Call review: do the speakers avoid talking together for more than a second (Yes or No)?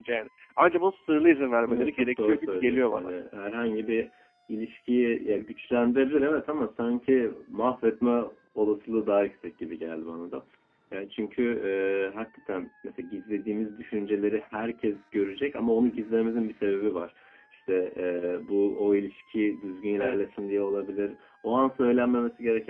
No